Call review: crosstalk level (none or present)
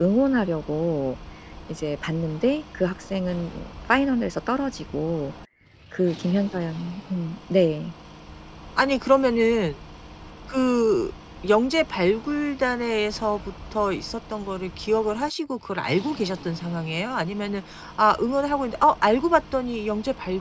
none